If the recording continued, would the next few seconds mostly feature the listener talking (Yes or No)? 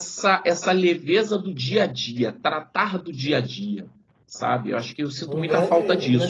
Yes